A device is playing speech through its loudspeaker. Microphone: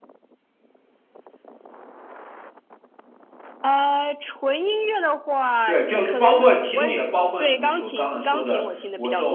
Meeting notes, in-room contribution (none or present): present